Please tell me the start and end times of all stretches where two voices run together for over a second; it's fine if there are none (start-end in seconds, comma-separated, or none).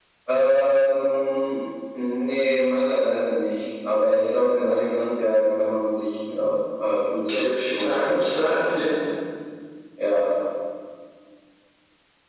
7.3-8.9